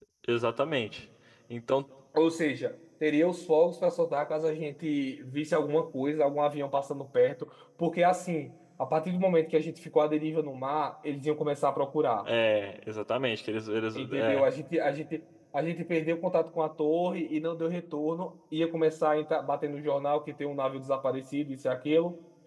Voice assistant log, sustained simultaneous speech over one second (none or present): none